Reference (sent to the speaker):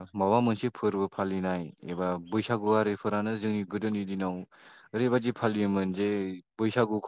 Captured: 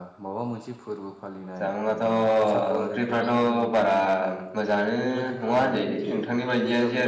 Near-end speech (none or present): present